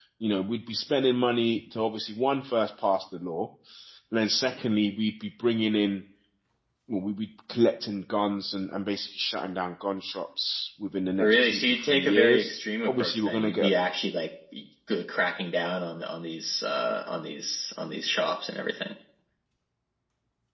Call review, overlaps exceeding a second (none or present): present